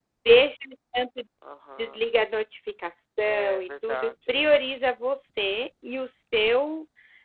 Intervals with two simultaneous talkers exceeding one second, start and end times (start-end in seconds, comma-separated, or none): 3.2-4.5